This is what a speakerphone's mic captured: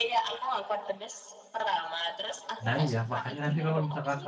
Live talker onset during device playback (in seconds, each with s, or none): 2.6 s